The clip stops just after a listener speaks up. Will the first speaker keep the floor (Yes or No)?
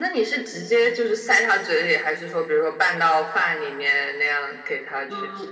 No